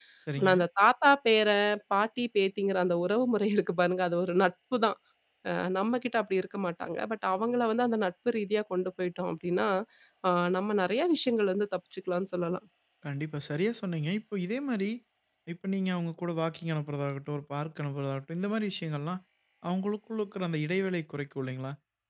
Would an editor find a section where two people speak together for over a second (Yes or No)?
No